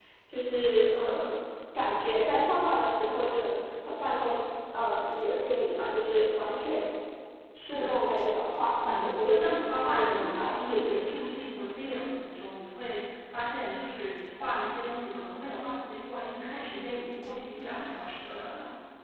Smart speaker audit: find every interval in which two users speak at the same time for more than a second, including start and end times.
8.8-11.1

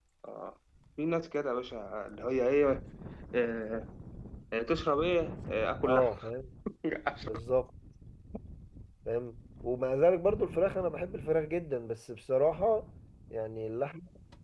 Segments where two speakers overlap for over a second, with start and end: none

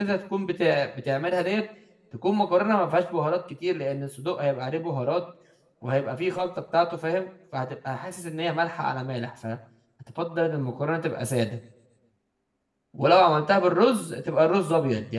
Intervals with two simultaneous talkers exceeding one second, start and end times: none

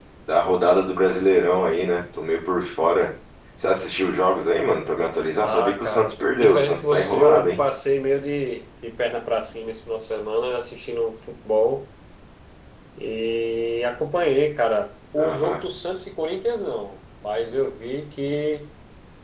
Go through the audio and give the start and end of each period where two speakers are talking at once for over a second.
5.4-7.6

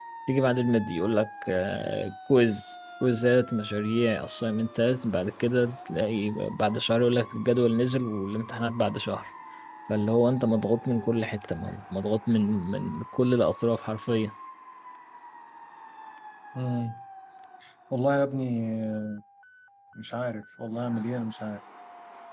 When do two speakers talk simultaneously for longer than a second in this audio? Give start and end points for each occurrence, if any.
none

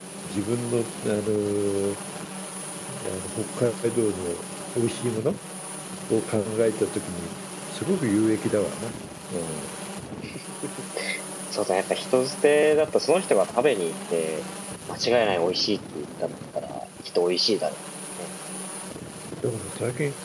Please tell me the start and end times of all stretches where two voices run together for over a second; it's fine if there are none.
none

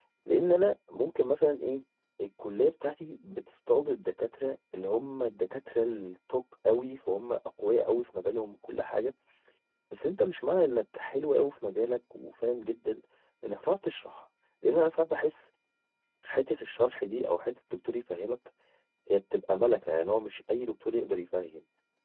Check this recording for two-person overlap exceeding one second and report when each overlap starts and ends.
none

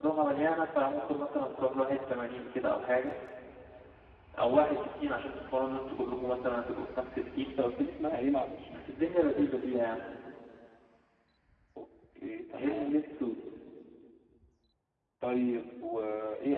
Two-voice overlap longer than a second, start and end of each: none

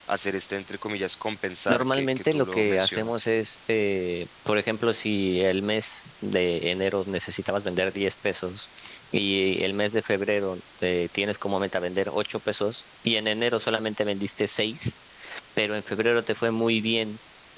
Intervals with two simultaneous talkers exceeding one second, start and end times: 1.7-3.3

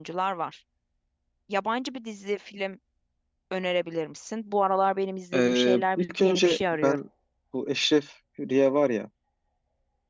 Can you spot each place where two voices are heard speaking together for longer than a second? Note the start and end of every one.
5.3-7.0

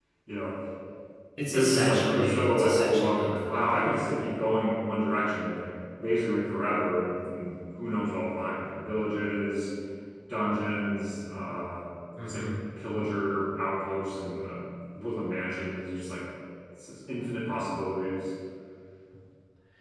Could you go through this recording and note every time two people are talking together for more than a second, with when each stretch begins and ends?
1.5-3.9

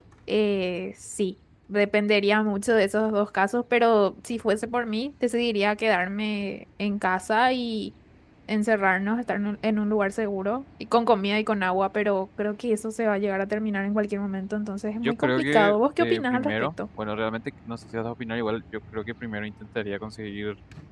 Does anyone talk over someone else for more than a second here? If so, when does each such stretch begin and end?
15.0-16.7

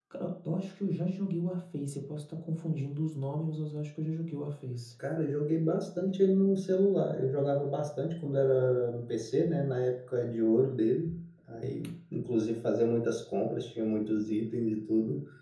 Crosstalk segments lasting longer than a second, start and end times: none

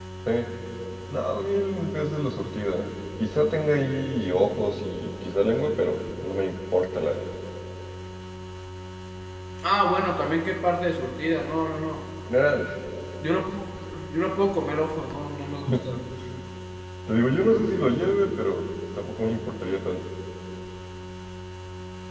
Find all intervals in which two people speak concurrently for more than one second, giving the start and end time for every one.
none

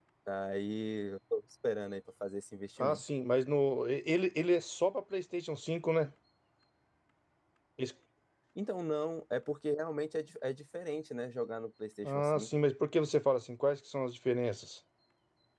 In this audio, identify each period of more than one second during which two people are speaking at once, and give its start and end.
none

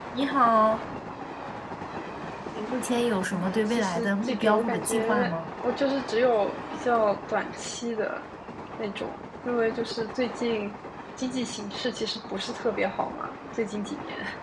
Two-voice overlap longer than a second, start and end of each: 3.3-5.4

